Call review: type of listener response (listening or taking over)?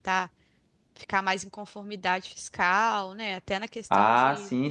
taking over